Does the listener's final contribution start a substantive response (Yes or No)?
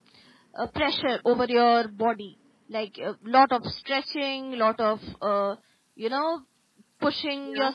No